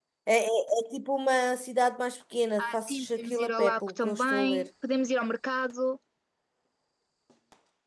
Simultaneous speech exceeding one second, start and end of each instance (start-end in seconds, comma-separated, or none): 2.6-4.7